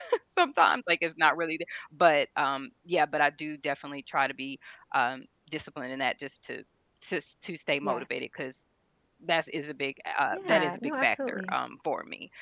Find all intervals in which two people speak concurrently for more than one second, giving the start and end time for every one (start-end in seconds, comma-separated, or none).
10.3-11.5